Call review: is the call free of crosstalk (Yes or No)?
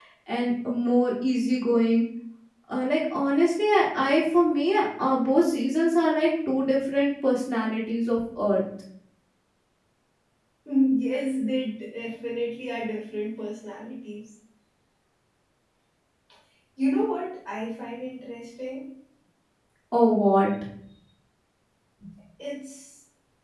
Yes